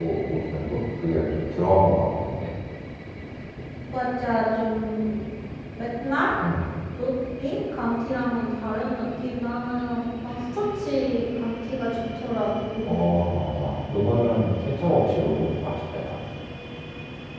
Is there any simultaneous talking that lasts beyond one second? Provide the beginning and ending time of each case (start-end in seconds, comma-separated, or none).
none